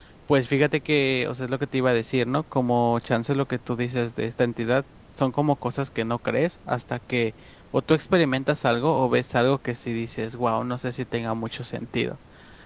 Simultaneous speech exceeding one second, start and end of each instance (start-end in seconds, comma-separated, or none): none